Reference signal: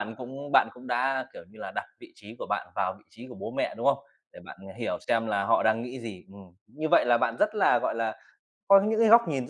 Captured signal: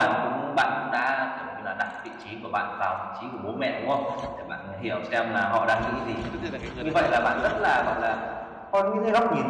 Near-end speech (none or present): present